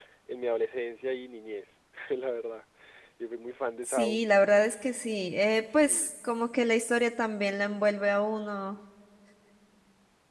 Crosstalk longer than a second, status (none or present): none